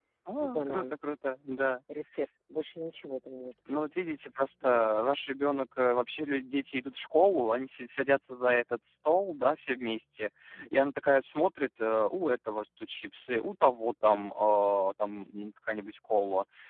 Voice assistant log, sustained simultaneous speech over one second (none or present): none